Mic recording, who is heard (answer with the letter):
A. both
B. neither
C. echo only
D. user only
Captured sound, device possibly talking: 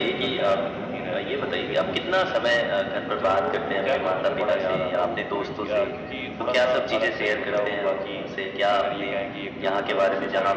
C